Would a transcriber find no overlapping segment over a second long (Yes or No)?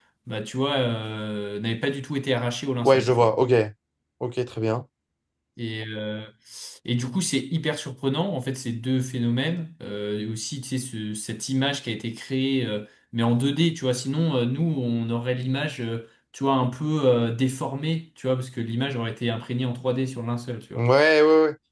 Yes